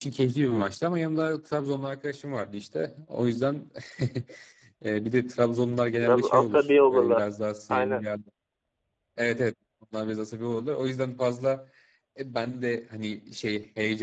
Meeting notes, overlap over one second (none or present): present